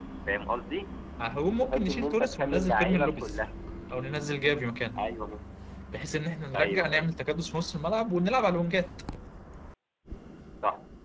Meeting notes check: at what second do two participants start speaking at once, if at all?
1.6 s

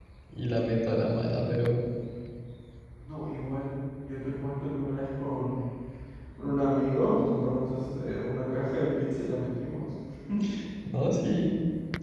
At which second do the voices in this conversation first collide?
none

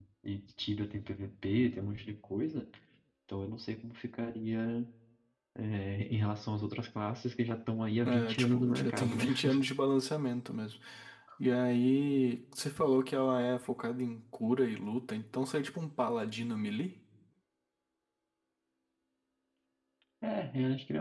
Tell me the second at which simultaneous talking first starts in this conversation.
8.0 s

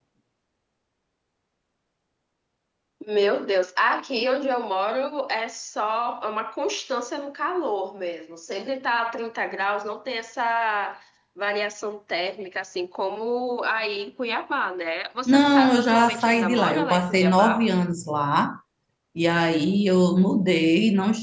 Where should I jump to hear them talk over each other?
15.3 s

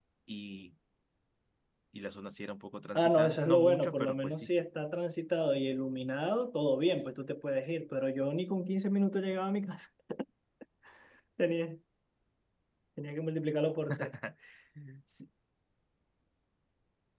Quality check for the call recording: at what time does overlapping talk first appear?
3.0 s

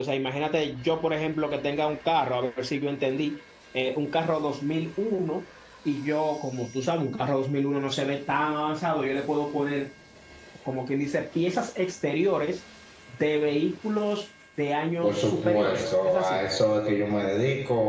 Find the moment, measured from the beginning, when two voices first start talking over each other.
15.0 s

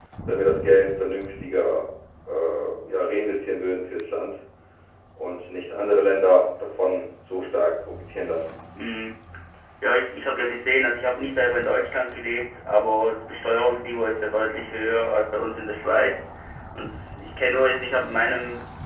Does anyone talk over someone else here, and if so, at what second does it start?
none

